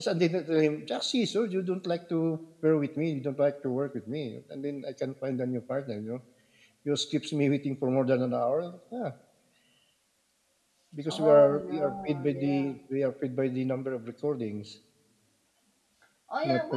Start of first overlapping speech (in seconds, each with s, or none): 11.1 s